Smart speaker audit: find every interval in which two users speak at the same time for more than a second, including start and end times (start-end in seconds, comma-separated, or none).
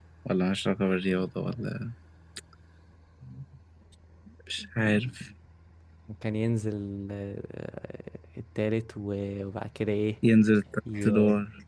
none